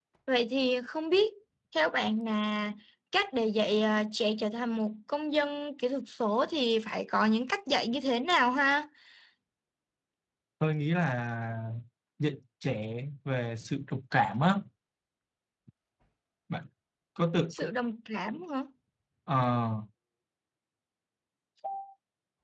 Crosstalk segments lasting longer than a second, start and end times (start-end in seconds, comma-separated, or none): none